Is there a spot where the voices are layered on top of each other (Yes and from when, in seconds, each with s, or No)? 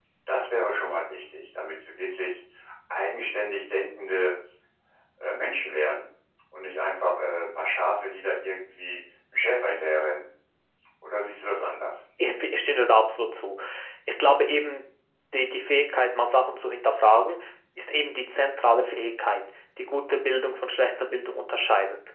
No